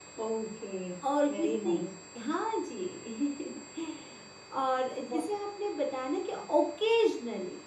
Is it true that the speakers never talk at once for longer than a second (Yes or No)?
Yes